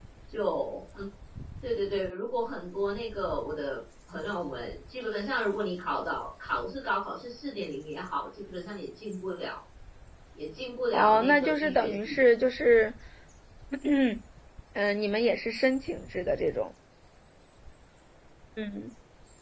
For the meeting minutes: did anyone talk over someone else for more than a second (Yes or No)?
Yes